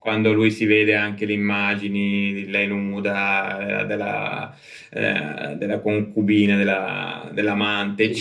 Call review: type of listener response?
listening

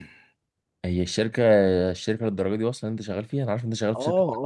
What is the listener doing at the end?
taking over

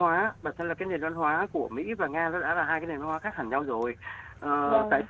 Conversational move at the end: listening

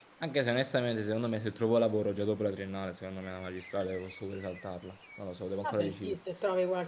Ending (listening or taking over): taking over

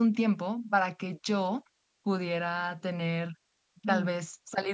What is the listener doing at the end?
listening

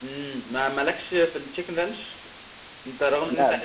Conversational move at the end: listening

